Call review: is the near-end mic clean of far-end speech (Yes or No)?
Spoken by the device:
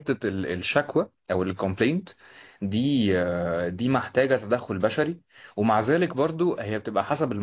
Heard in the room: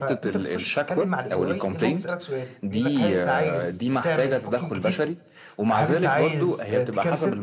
No